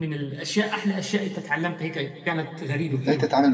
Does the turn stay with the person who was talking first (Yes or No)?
No